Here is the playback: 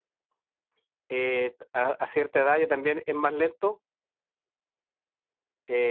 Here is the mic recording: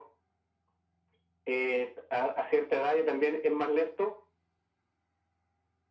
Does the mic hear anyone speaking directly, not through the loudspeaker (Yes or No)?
No